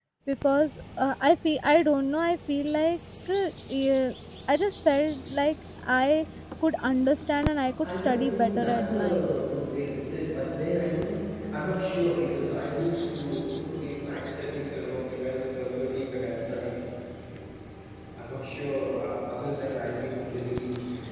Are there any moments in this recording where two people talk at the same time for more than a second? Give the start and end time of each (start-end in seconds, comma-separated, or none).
7.8-9.3